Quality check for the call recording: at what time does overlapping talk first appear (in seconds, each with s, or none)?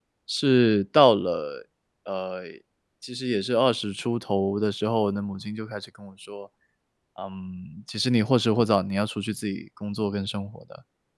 none